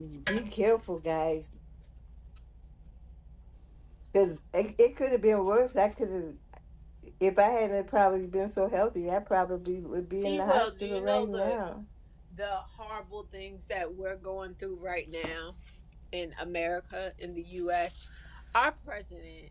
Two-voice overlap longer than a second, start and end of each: 10.2-11.6

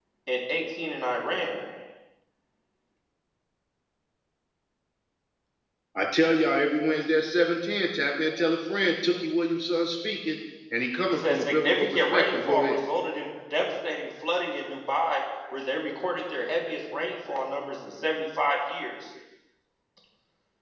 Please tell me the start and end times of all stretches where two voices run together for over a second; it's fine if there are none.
11.1-12.8

